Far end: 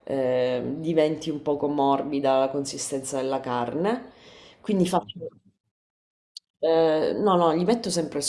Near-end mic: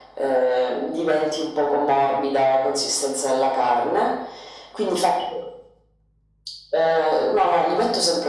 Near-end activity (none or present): none